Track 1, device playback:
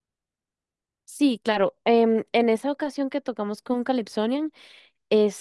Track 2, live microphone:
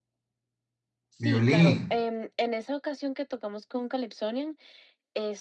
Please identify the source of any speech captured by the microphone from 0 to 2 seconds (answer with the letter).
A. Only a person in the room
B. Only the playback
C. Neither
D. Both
D